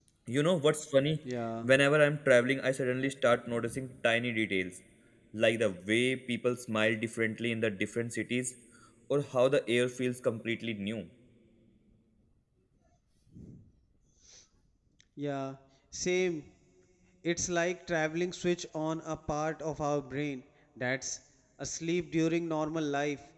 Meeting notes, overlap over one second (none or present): none